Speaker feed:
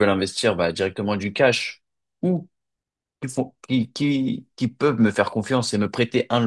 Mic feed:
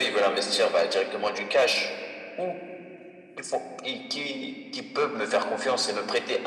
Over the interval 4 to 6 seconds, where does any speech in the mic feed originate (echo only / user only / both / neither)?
echo only